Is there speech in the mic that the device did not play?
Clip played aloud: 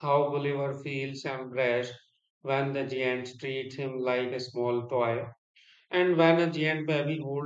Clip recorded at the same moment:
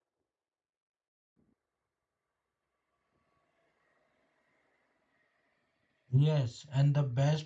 Yes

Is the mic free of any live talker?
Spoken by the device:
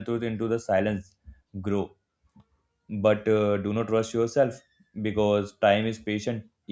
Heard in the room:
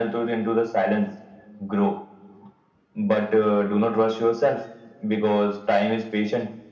Yes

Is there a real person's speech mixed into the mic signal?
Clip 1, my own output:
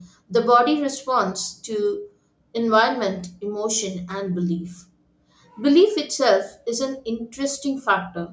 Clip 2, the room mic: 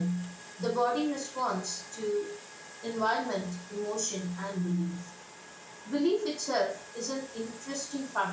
No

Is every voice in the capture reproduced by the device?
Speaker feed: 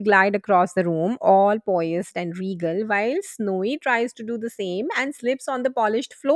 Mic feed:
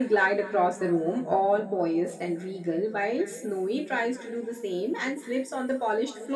Yes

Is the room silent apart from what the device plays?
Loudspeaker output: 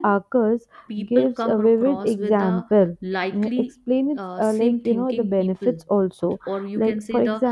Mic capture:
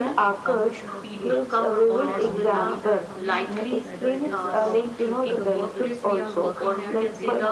No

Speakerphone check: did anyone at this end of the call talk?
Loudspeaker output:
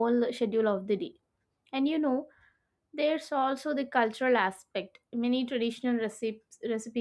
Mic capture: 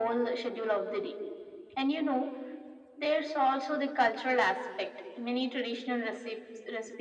No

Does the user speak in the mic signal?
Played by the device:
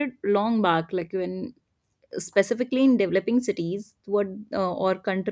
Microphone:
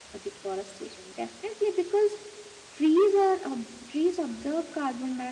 Yes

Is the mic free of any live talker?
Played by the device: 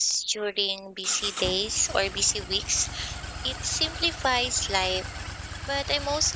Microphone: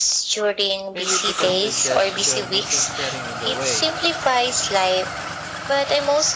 No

